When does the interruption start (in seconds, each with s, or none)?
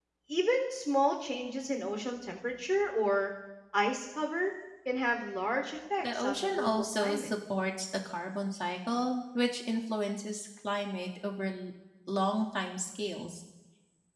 6.0 s